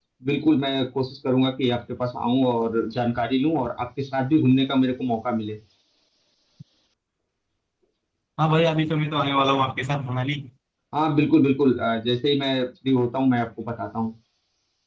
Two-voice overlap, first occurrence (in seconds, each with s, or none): none